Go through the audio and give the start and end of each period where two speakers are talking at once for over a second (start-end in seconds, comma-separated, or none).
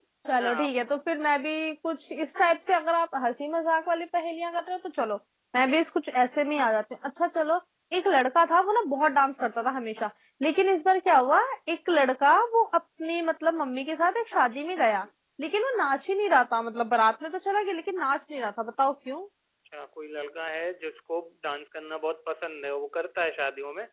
none